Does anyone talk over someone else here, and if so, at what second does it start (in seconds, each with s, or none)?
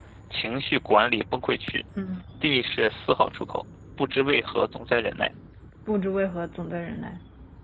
none